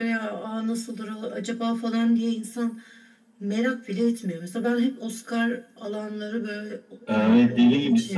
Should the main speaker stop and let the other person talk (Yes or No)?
Yes